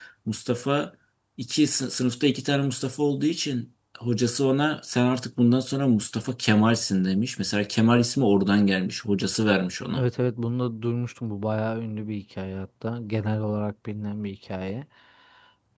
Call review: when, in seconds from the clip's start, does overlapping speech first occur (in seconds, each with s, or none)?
none